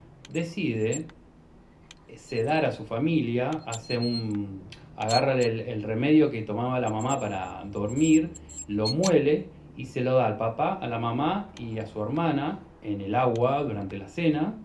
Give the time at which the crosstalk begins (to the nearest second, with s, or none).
none